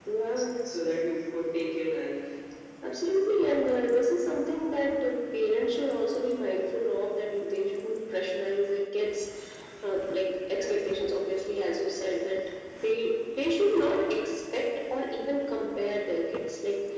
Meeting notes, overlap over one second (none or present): none